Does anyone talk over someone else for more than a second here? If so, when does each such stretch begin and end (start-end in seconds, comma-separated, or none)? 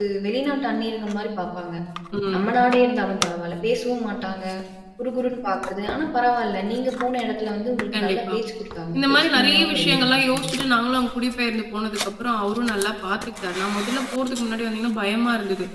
9.0-10.5